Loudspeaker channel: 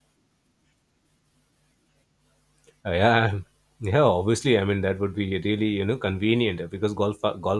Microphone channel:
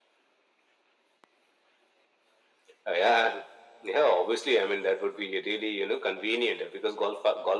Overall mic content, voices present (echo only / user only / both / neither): echo only